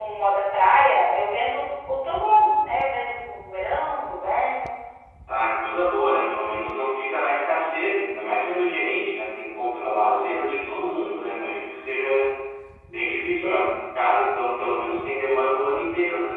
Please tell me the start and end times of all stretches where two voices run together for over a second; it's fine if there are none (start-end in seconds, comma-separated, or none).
none